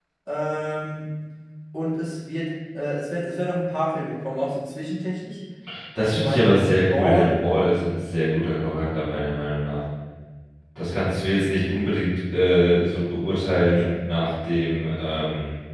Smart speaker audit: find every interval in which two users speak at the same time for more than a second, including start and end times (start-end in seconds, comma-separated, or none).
6.0-7.4